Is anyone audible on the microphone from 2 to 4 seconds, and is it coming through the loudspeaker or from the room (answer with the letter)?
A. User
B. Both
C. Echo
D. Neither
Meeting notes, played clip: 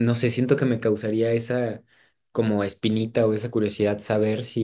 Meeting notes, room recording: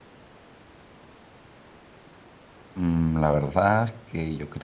A